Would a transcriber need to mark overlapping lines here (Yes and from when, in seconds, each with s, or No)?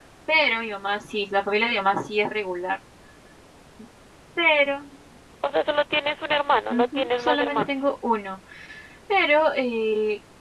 Yes, from 6.7 s